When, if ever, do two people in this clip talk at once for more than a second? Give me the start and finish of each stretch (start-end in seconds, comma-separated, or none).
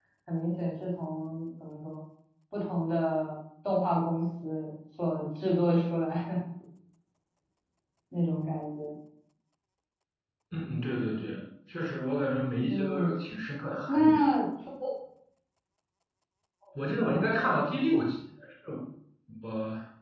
none